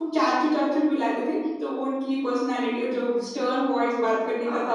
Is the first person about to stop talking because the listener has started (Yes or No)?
No